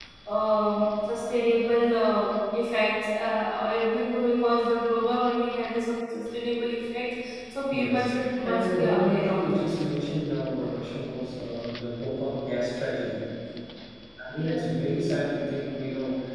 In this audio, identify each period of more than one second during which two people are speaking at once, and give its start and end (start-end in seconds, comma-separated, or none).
7.7-9.7